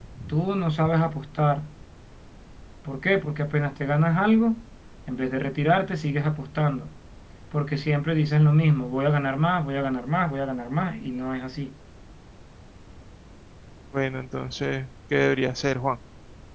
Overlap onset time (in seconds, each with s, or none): none